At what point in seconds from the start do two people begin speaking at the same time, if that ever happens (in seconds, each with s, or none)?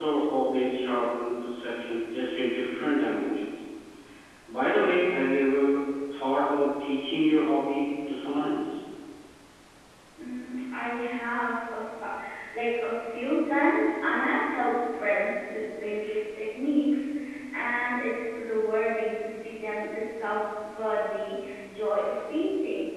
none